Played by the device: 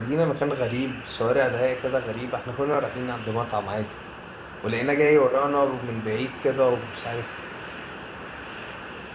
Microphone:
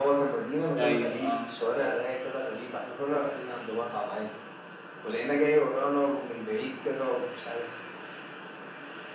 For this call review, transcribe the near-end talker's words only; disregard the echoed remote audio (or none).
ايوه اه